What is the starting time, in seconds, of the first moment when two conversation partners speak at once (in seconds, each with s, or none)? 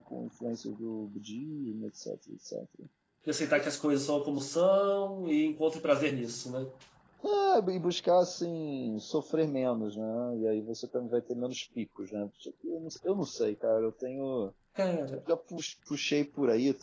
none